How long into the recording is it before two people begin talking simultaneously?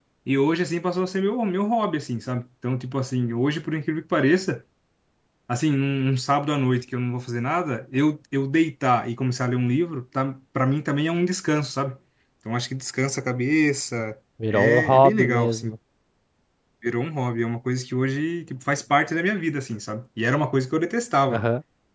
14.4 s

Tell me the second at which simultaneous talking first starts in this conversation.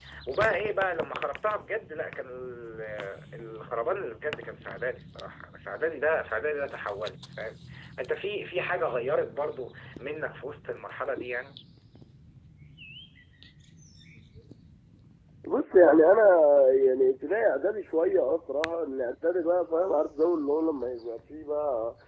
none

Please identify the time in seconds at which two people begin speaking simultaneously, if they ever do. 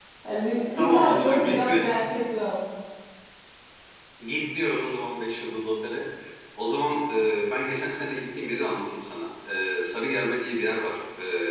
0.8 s

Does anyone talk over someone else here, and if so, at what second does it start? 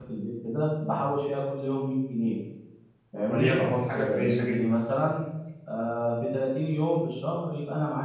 3.3 s

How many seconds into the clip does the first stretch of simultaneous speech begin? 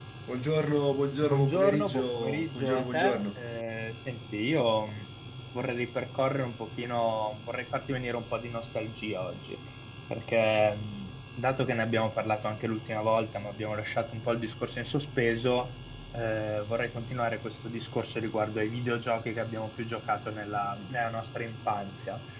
1.2 s

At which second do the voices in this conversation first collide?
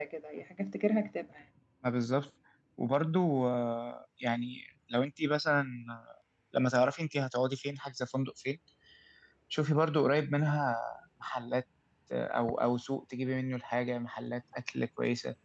none

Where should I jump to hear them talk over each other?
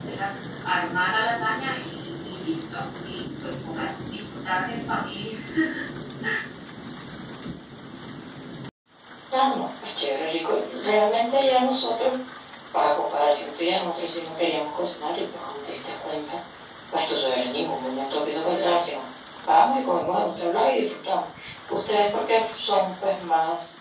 none

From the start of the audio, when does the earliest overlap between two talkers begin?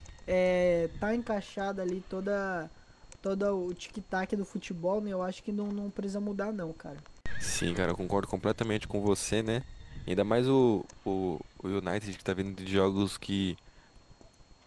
none

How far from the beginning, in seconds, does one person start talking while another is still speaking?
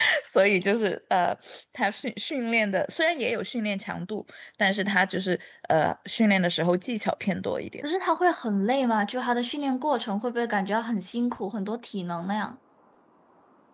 none

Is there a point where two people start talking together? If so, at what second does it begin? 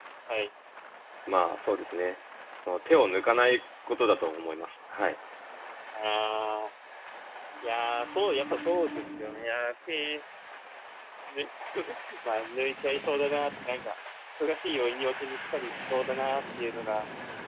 none

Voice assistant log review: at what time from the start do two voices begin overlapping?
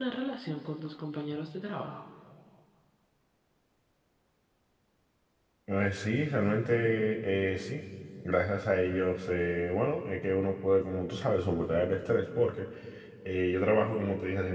none

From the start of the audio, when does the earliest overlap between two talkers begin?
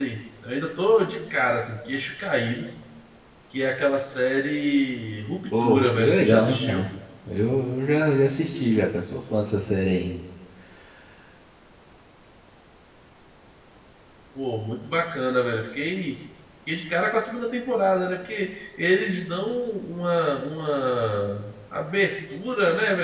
5.5 s

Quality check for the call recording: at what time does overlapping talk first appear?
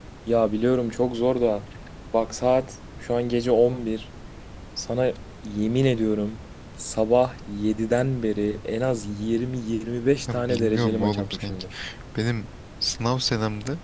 10.3 s

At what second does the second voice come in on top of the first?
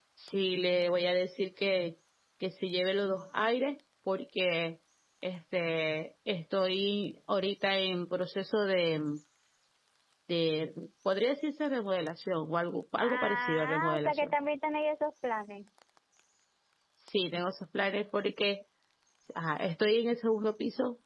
13.0 s

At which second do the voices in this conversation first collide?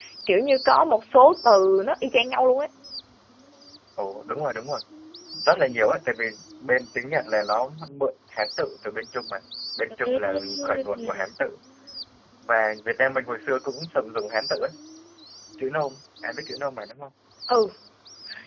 10.0 s

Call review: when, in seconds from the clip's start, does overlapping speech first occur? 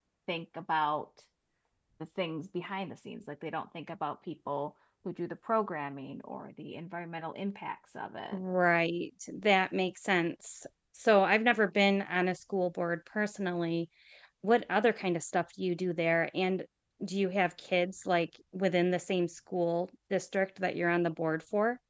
none

